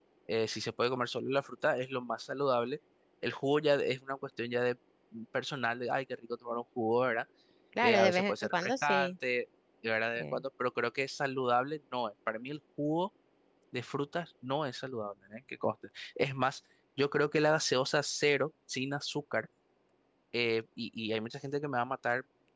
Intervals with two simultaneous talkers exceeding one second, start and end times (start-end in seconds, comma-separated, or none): 7.8-9.1